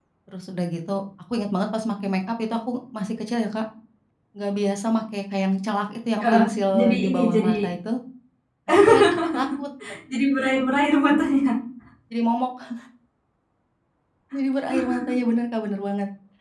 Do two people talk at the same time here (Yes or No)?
Yes